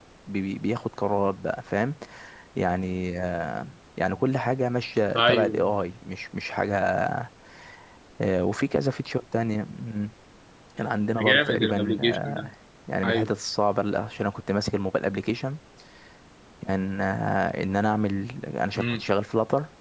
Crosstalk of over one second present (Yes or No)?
Yes